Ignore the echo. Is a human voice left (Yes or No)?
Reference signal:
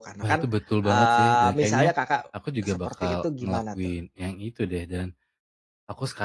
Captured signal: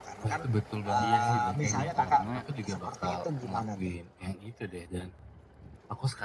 Yes